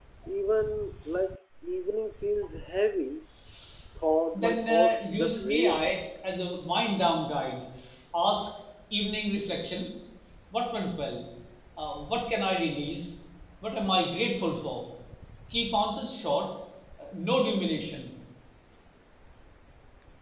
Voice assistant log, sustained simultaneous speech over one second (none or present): present